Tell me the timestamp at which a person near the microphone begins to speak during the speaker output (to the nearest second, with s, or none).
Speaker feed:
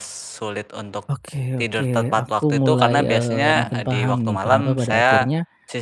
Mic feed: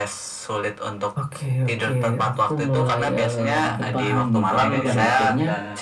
5 s